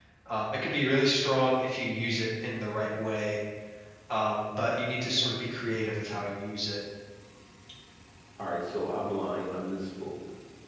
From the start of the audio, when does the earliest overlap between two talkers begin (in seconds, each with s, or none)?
none